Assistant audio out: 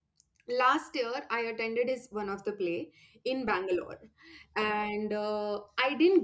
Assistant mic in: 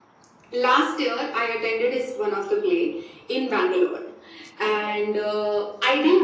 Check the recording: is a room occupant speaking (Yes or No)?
No